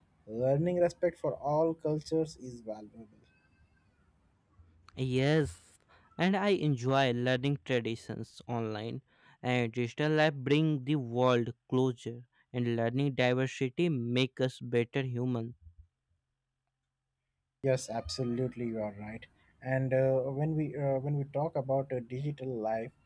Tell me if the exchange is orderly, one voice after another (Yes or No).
Yes